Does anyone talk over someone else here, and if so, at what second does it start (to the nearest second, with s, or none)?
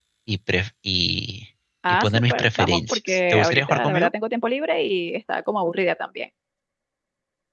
2 s